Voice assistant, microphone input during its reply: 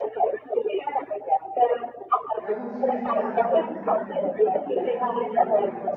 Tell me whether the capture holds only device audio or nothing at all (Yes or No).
No